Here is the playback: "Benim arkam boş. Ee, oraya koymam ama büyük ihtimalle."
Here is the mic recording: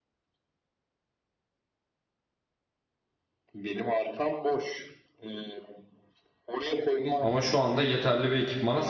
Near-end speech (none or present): present